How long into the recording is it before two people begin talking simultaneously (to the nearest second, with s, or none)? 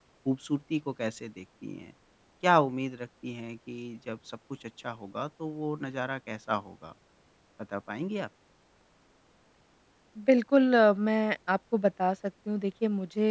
none